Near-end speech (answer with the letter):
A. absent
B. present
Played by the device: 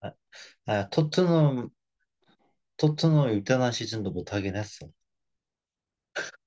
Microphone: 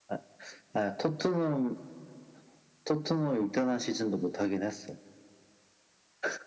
A